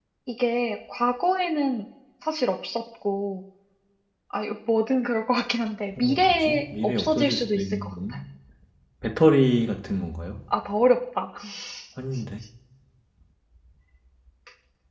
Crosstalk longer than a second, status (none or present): present